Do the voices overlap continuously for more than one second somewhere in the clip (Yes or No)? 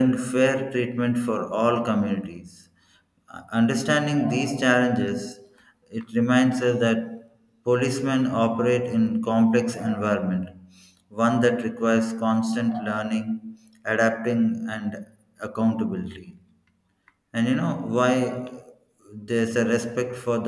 No